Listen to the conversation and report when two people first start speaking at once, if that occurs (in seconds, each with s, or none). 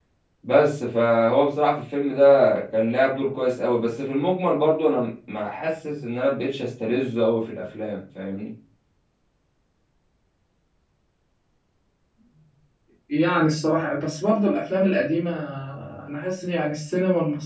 none